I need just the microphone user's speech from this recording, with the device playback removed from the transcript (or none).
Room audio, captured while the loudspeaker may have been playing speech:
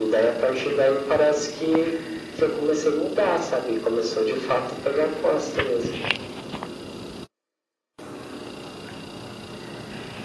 none